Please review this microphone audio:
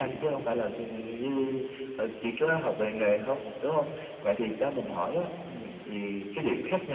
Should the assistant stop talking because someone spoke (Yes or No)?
Yes